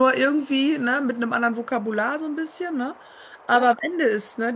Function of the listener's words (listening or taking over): listening